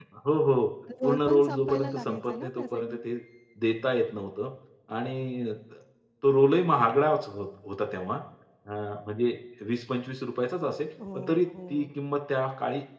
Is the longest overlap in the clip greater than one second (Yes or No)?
Yes